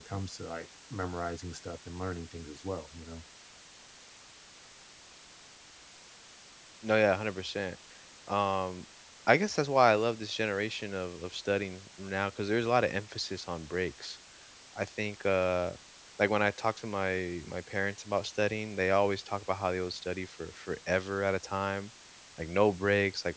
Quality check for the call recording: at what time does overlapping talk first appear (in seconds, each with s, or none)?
none